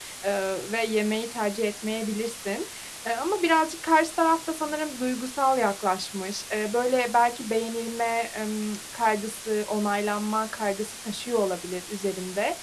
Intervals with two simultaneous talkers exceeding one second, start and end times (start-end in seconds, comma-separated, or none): none